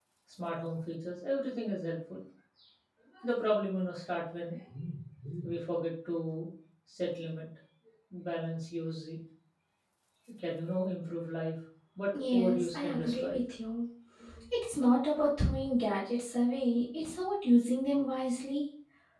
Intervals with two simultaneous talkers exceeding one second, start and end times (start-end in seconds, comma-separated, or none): 12.1-13.4